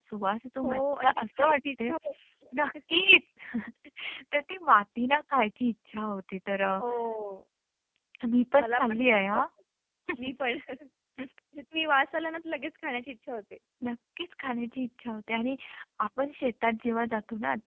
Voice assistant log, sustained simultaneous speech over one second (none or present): present